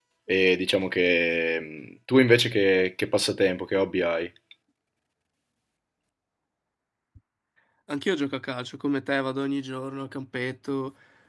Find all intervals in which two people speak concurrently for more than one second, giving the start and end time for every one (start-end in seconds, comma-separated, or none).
none